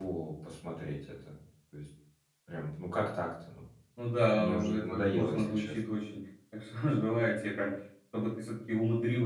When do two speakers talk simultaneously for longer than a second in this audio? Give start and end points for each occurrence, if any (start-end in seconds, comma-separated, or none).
4.4-5.8